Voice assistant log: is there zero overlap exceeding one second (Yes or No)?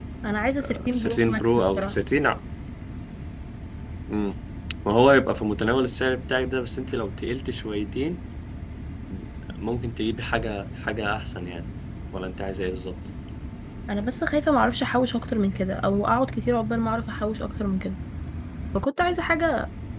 No